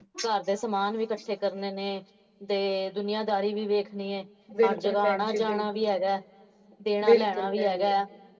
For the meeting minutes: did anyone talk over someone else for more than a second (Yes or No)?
Yes